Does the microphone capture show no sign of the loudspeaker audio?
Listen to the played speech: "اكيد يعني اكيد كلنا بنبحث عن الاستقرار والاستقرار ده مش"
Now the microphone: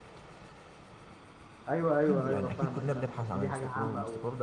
No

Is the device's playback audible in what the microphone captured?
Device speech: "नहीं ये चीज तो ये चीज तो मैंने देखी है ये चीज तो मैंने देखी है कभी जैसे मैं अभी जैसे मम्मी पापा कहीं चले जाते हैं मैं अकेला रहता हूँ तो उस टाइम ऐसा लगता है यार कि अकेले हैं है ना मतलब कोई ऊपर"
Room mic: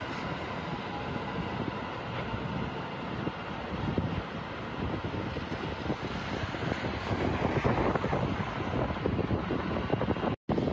No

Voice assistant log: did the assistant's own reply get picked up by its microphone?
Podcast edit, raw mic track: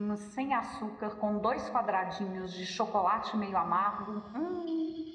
No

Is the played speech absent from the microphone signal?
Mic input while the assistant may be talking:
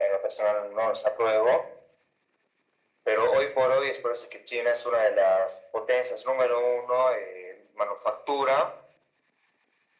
No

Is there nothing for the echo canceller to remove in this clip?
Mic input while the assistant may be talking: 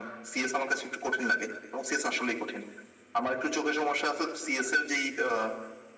No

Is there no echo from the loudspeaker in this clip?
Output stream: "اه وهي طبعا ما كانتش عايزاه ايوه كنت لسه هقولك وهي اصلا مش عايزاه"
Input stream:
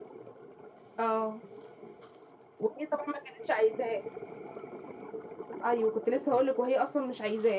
No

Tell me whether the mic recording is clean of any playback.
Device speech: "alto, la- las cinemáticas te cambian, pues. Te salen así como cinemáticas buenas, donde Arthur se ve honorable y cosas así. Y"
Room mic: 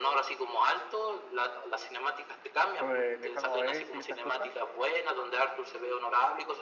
No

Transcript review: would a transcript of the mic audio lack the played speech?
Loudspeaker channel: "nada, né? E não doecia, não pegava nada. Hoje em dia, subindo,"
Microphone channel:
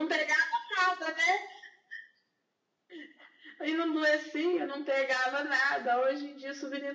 No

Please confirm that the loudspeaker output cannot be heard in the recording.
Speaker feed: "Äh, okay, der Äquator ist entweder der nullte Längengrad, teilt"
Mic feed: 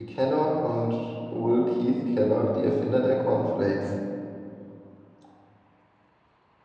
Yes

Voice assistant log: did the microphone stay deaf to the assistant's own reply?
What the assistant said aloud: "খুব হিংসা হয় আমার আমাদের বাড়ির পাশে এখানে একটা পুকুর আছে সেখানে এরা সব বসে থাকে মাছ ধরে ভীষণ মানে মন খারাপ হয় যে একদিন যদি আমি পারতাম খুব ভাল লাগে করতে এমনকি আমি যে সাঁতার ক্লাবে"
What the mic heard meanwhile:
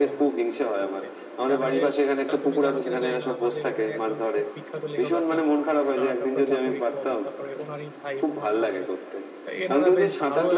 No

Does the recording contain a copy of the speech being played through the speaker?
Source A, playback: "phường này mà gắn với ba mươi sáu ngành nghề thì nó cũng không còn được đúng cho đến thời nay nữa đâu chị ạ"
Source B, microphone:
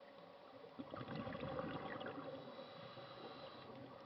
No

